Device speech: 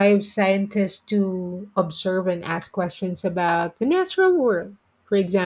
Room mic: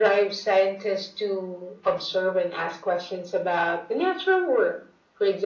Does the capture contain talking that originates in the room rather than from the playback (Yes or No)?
No